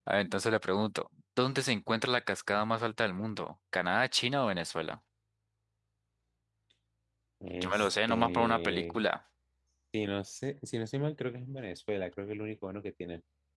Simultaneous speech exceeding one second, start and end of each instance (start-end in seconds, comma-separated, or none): 7.6-9.0